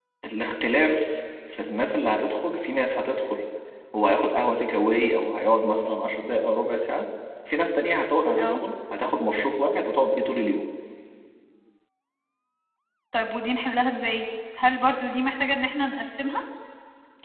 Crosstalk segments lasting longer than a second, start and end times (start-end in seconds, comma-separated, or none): none